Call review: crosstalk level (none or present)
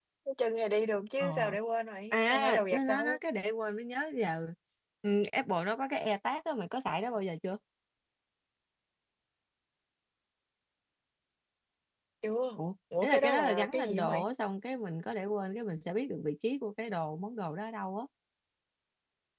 present